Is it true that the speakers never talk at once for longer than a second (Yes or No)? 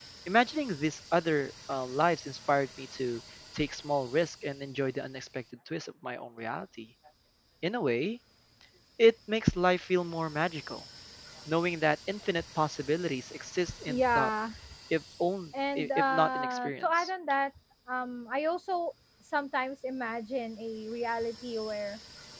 No